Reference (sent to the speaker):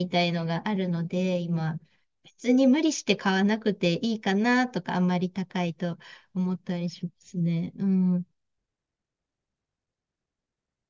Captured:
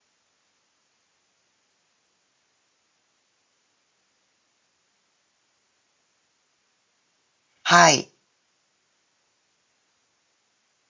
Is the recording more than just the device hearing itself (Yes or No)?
Yes